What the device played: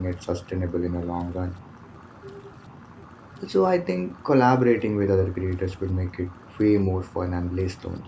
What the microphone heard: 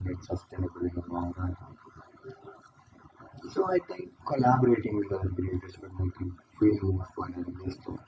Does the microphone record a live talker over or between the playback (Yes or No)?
No